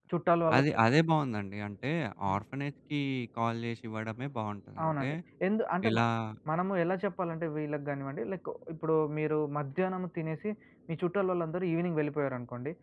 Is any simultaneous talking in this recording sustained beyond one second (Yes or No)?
No